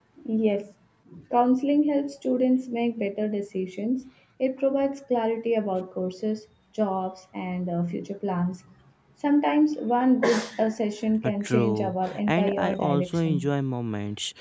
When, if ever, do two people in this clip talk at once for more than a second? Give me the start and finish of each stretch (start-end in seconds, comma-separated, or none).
11.2-13.5